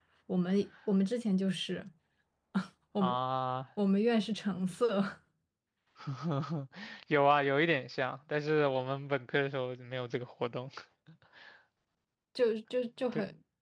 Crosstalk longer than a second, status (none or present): none